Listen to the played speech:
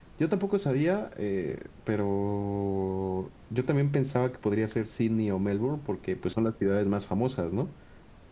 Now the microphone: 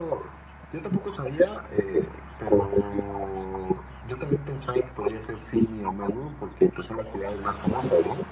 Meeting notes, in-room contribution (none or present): none